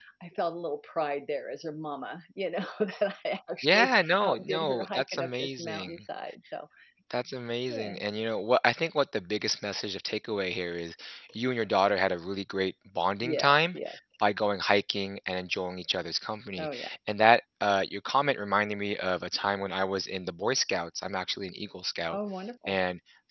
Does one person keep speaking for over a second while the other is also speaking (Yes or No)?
Yes